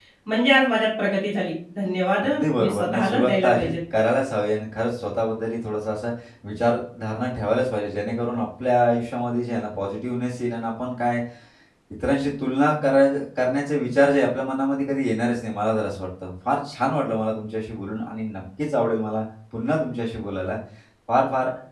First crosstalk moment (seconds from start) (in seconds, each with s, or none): 2.2 s